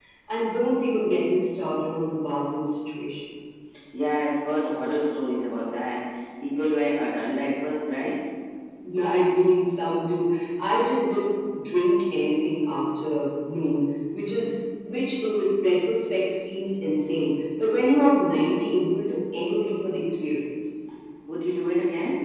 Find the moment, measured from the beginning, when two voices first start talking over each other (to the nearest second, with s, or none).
none